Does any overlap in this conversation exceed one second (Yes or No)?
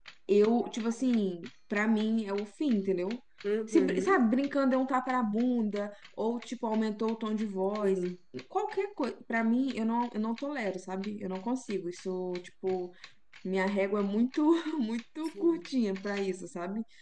No